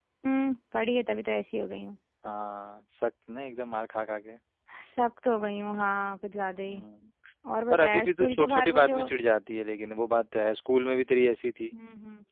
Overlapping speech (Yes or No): Yes